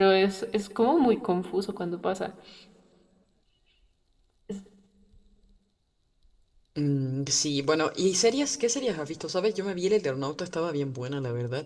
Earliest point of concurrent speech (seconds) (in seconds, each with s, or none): none